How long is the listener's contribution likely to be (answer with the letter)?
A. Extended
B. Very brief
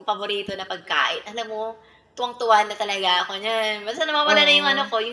B